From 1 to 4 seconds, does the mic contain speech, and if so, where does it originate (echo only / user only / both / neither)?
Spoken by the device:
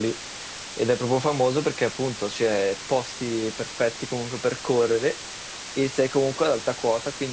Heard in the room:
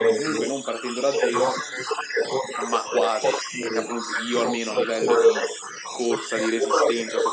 both